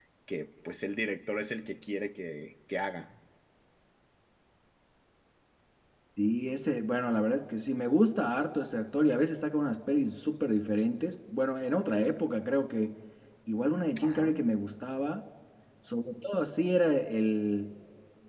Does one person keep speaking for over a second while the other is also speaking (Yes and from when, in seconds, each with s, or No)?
No